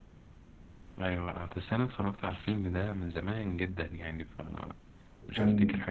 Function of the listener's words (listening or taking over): taking over